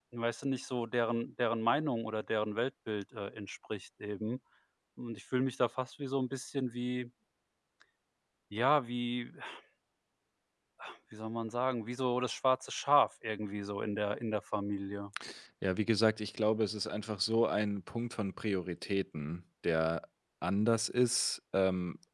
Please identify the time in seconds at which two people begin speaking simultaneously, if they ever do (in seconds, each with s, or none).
none